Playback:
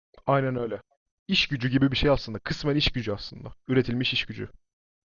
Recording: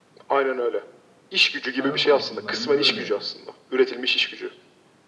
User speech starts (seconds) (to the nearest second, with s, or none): 2 s